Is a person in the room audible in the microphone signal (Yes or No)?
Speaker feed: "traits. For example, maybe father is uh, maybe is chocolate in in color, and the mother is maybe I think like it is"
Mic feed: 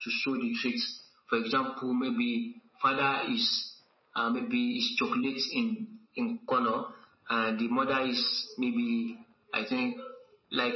No